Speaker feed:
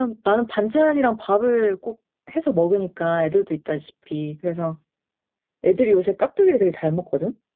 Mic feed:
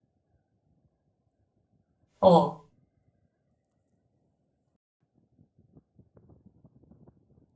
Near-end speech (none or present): present